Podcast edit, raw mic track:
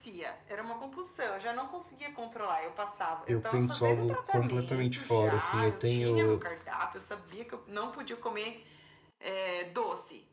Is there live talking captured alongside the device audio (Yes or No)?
Yes